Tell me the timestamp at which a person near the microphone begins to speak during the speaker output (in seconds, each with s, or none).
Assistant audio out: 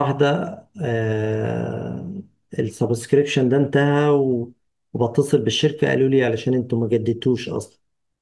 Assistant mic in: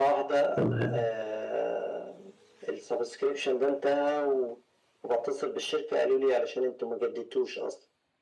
0.6 s